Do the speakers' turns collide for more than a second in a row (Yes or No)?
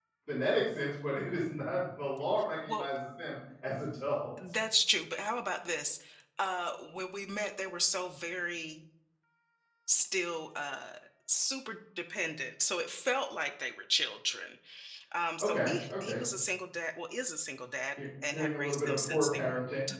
Yes